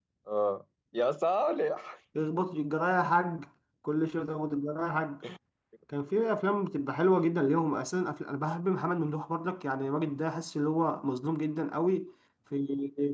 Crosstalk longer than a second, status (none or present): none